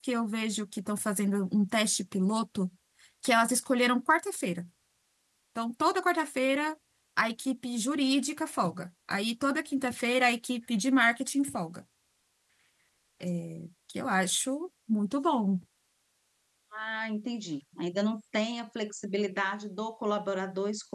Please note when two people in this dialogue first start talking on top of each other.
none

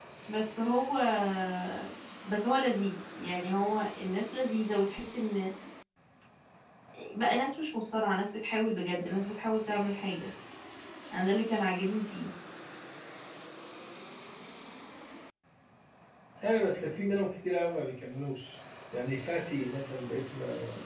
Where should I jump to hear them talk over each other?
none

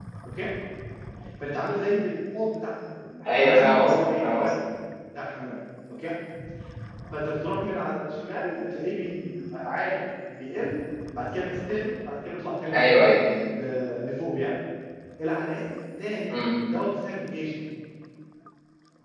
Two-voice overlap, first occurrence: 3.3 s

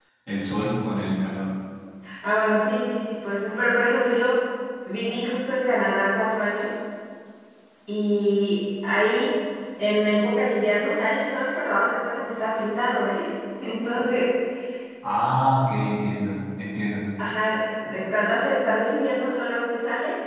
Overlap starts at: none

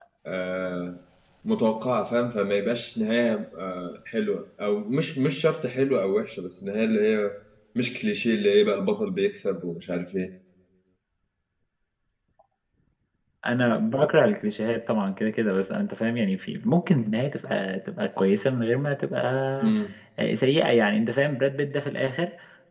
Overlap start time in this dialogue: none

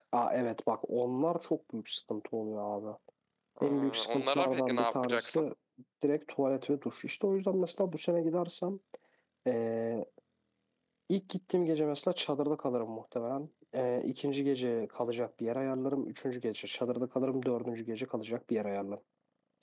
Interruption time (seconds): 3.6 s

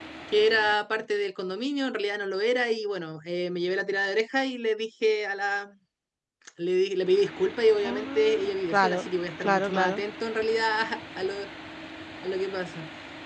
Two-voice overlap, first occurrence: 7.8 s

